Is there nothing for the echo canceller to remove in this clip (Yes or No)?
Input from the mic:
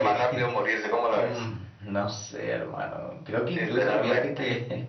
No